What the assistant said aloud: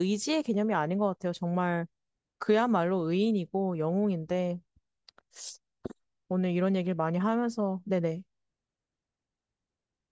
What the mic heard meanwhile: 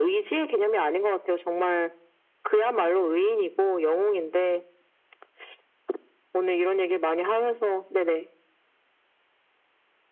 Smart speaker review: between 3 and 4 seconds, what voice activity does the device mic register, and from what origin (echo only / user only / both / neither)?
echo only